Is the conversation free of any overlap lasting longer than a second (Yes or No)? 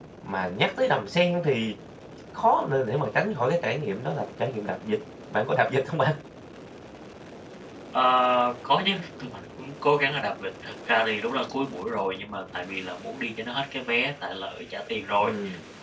Yes